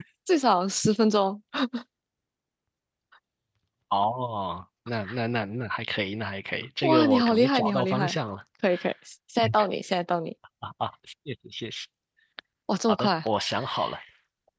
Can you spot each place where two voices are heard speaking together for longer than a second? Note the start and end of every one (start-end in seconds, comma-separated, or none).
6.8-8.2